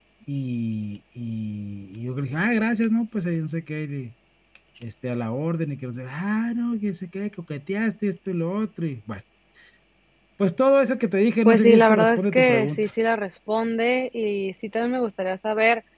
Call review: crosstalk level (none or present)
present